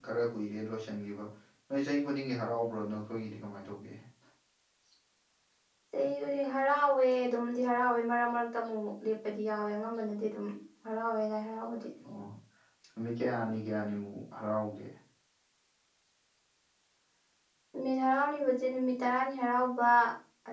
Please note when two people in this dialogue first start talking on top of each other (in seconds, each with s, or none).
none